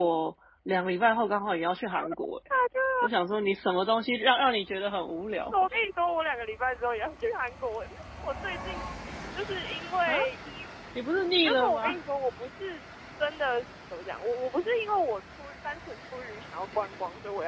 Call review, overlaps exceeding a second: none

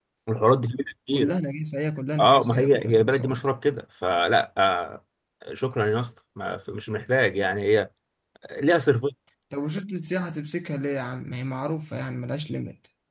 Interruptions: present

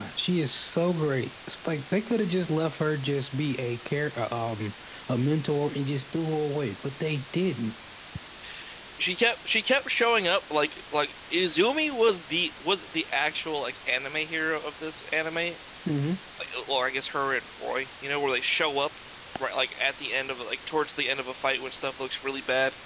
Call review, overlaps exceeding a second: none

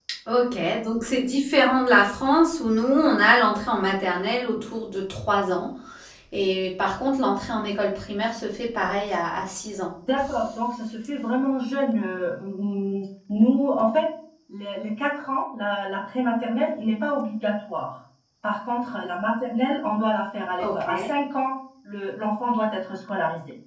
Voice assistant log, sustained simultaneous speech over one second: none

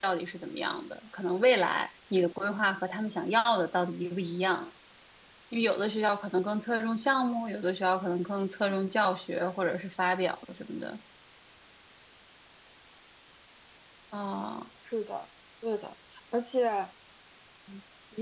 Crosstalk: none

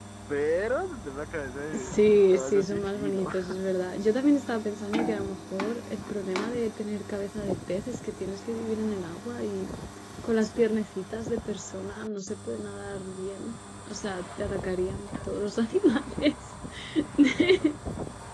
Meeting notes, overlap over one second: present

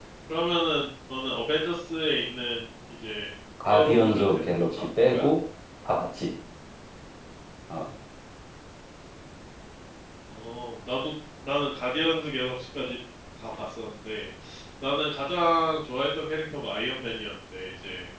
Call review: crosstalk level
present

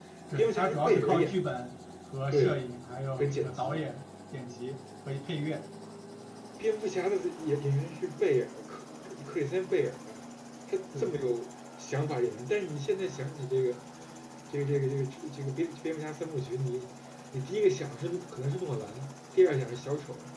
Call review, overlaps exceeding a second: present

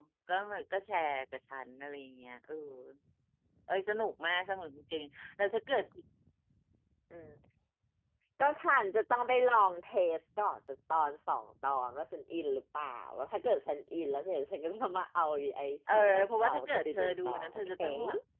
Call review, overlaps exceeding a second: present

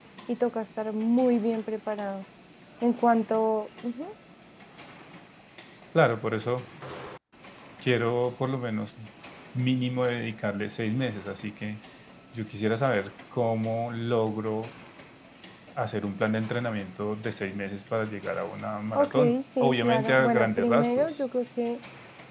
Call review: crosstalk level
present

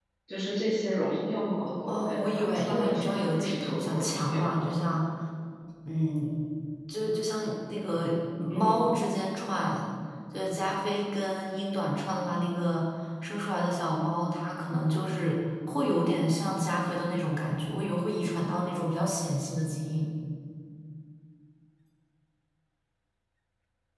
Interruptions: present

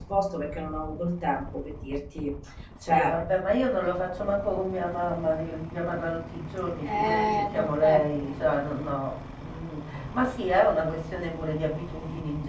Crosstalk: present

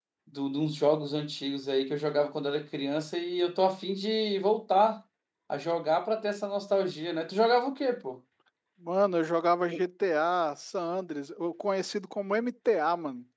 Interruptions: none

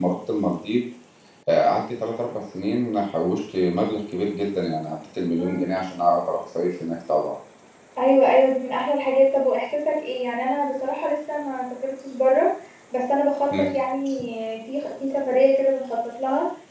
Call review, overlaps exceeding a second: none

